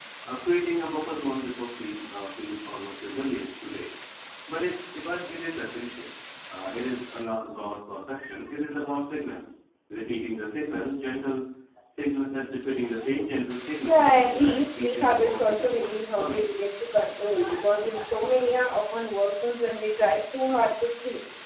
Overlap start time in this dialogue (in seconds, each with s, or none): 13.9 s